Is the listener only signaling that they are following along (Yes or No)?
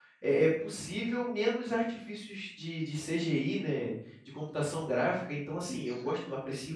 Yes